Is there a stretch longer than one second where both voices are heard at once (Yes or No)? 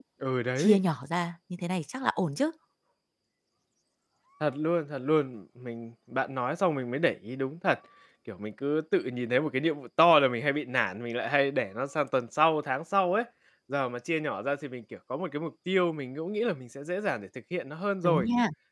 No